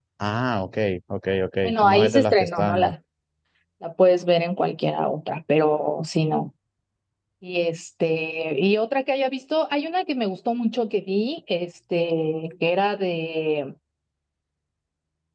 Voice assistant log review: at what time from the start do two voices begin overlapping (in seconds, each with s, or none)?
1.6 s